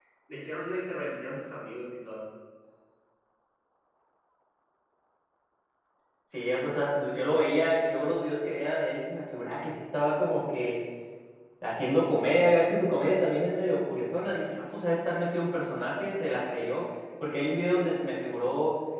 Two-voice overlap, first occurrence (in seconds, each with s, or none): none